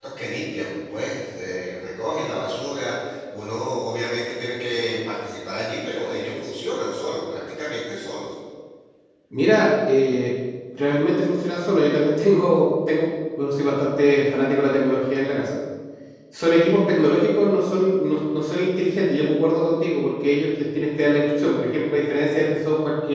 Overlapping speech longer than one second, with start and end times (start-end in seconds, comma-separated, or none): none